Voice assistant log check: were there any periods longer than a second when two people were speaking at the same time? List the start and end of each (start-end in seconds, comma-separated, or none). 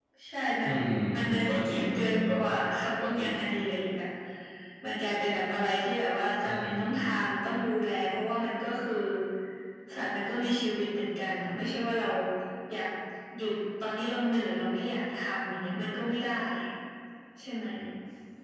1.1-2.4